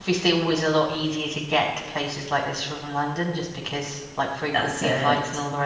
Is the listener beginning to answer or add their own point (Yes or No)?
No